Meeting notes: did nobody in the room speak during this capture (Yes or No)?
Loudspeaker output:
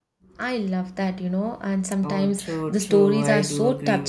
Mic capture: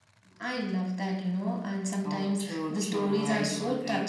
Yes